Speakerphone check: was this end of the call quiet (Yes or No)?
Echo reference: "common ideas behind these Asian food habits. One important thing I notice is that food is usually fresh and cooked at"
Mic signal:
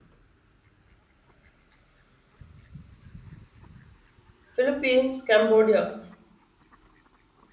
No